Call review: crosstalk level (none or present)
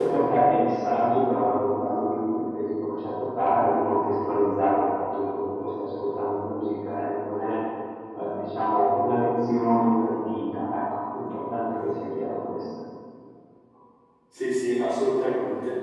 none